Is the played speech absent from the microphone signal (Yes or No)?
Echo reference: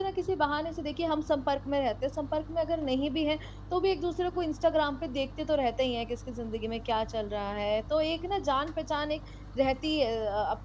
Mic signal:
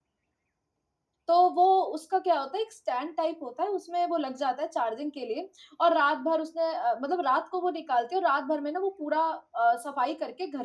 Yes